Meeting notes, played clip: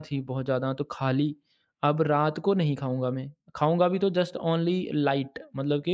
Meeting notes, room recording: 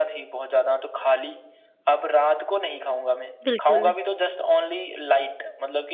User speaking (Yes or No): Yes